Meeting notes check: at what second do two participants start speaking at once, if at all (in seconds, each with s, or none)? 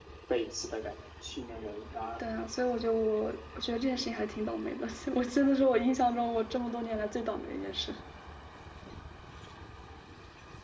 none